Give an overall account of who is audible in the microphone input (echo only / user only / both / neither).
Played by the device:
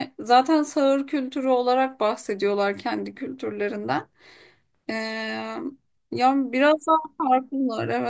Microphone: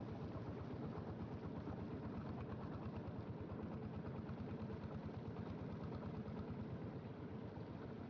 neither